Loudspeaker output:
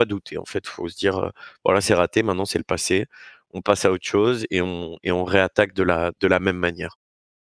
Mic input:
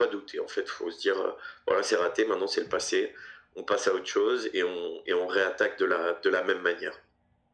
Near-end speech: none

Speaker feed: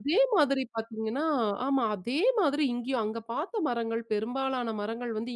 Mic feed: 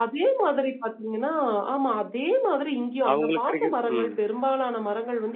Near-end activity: present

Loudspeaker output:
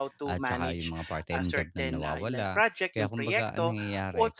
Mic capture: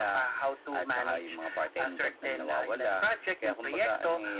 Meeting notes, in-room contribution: none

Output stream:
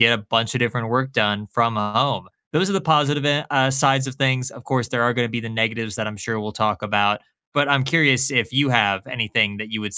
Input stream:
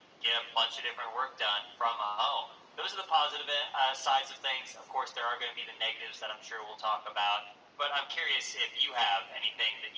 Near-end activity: none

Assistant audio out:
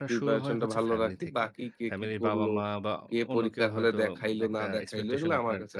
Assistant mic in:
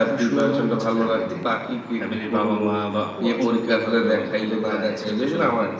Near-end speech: present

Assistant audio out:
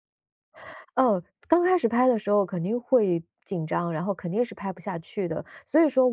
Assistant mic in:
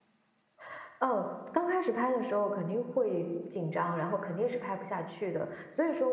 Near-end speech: none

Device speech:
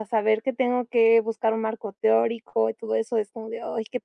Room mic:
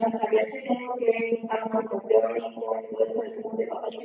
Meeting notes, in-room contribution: none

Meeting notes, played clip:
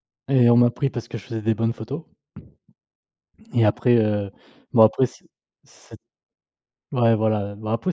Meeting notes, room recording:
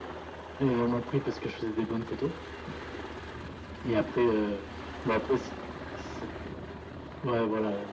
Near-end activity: none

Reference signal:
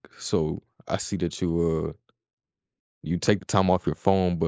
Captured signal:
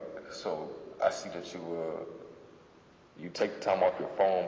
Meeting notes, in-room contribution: none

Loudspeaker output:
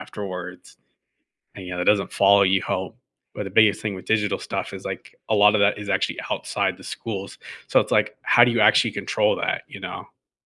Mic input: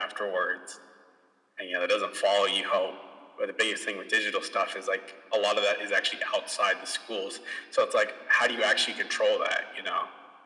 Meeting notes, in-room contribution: none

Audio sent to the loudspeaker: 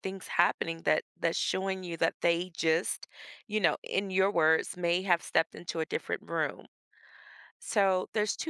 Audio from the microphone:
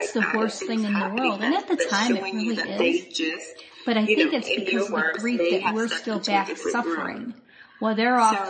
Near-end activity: present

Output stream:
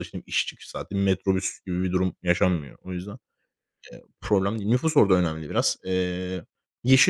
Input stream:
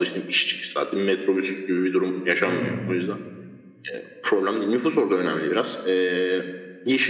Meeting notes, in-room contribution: present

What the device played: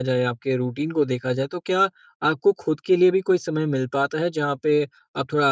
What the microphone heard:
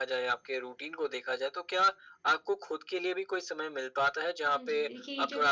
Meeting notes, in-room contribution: present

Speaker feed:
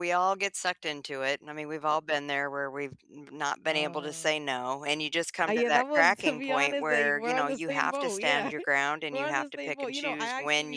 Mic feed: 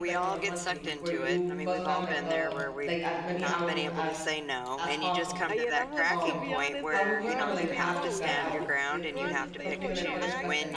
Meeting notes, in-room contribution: present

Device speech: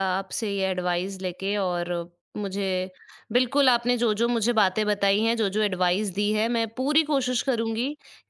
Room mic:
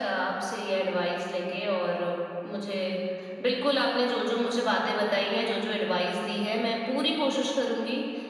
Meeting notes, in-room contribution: none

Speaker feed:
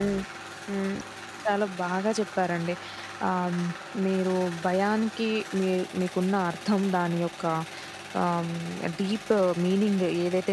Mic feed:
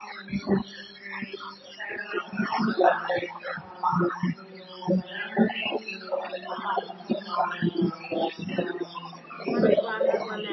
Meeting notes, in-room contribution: present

